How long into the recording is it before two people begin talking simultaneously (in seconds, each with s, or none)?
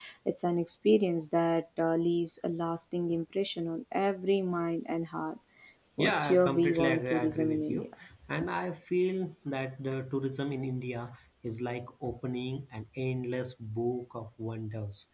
6.0 s